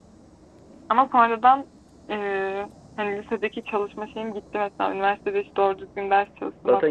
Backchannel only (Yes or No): No